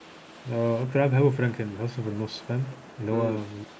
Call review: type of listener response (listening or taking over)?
taking over